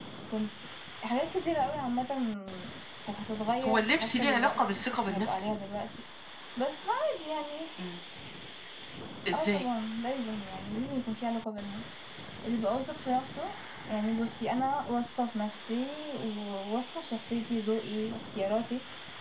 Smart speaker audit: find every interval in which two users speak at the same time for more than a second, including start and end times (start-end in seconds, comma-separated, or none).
3.7-5.5